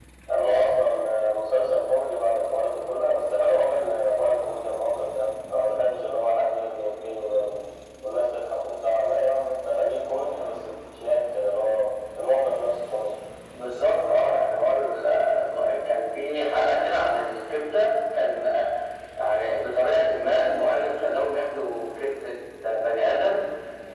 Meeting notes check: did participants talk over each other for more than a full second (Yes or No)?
No